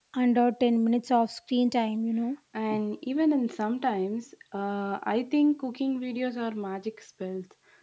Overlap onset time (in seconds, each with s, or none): none